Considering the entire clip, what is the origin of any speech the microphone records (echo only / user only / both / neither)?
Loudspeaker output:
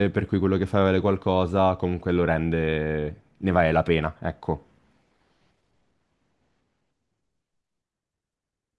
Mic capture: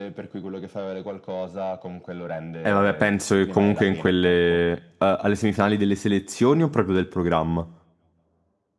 both